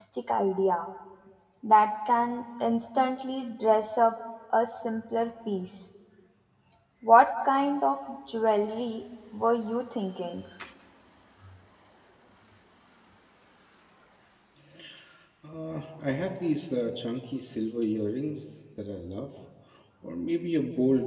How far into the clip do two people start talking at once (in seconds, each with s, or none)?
none